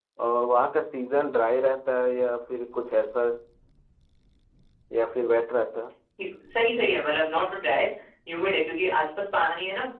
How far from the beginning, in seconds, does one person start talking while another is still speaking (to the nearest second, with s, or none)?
none